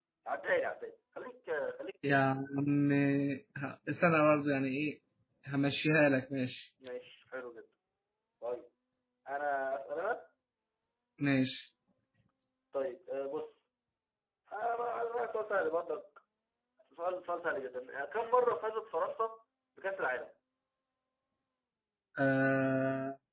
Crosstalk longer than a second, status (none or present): none